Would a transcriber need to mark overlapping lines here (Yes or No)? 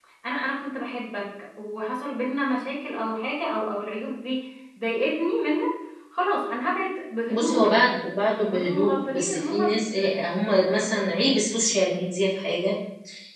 Yes